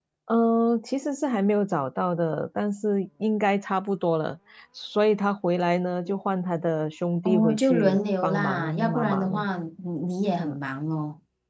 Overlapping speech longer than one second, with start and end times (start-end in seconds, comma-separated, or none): 7.2-9.5